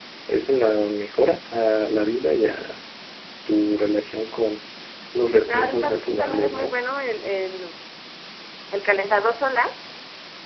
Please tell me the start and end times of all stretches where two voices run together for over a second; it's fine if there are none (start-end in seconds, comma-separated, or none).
5.5-6.8